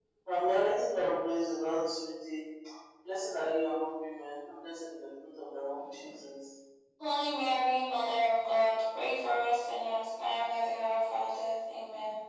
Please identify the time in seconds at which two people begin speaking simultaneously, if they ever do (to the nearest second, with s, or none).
none